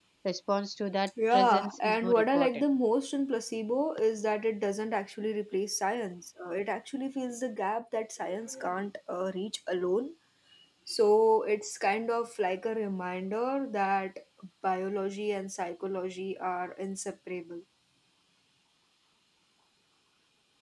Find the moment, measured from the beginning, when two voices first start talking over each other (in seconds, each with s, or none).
1.3 s